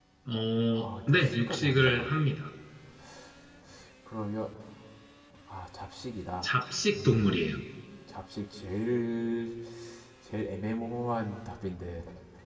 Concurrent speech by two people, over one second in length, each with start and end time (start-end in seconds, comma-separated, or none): 0.8-2.1